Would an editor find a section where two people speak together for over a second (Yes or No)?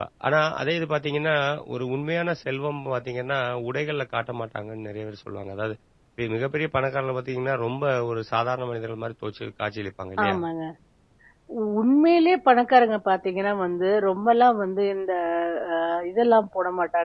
No